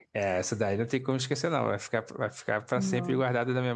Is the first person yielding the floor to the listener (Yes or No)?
No